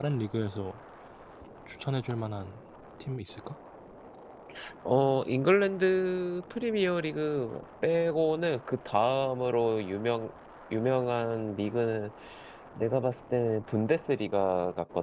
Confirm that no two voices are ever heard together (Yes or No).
Yes